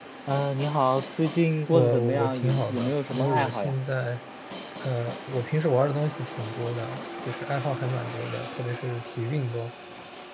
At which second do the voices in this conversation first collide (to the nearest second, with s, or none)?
2 s